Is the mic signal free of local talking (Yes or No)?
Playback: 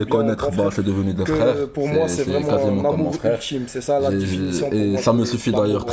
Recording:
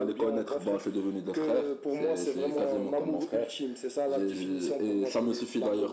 Yes